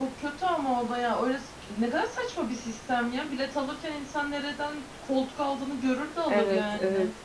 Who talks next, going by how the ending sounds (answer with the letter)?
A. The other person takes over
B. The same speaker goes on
A